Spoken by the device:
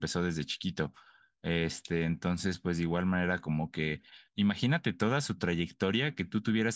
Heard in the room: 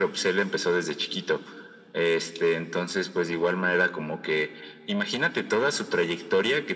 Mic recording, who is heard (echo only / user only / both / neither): echo only